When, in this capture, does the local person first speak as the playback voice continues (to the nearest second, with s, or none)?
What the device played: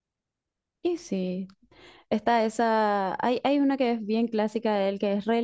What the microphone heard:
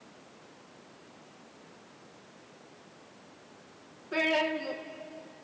4 s